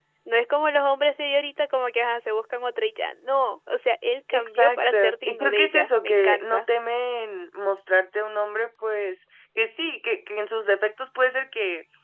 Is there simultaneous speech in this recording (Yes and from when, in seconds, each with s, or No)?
Yes, from 4.3 s